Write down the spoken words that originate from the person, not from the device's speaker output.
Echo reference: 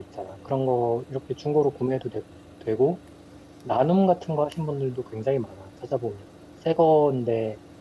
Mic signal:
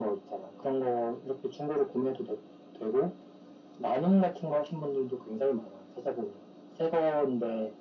none

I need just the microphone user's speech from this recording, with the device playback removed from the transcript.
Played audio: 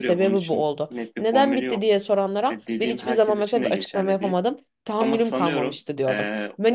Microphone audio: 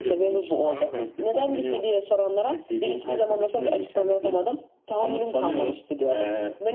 Anladım.

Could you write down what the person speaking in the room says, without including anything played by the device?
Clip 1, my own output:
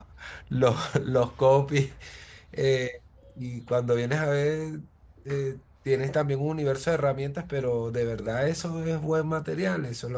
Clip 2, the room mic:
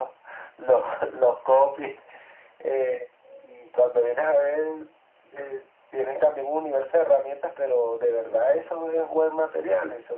none

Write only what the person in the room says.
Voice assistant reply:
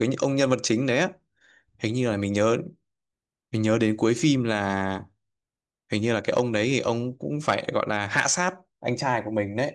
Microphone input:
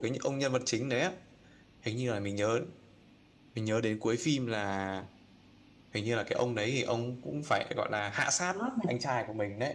đó là

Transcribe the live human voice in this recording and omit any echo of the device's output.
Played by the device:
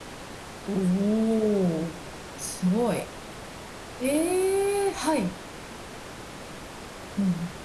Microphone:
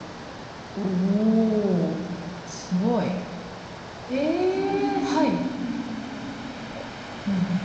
うるんう

